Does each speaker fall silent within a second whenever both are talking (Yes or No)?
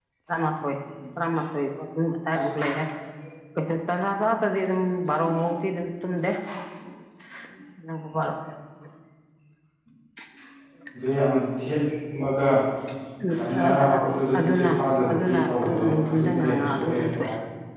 No